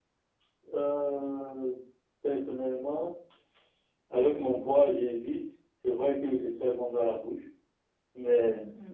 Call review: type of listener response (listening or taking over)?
listening